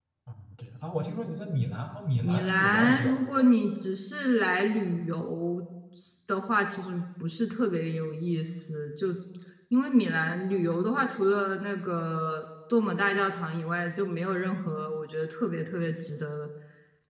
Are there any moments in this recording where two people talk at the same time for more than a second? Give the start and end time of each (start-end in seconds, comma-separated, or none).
2.2-3.4